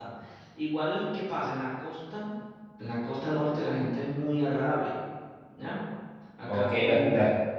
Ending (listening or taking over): taking over